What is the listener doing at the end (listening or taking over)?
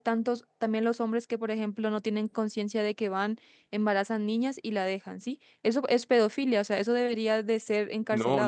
taking over